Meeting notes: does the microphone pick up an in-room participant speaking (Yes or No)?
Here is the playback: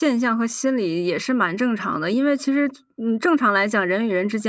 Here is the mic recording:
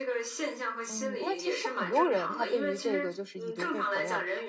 Yes